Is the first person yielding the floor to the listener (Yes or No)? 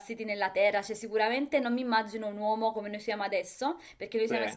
No